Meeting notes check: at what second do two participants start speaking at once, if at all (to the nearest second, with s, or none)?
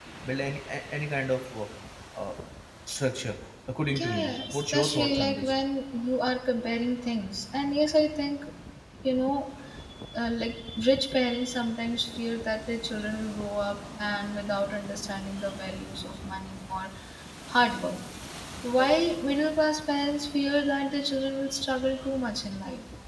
4 s